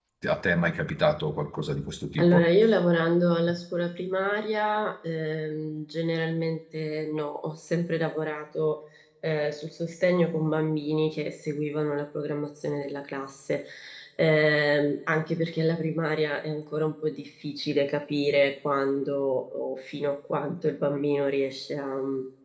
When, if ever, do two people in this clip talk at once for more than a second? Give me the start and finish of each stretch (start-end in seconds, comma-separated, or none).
none